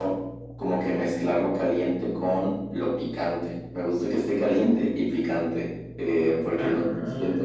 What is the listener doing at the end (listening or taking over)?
listening